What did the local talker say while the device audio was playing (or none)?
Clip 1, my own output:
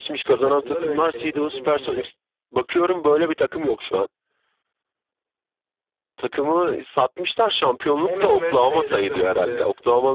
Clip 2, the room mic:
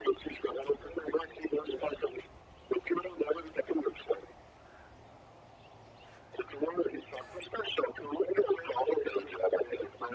none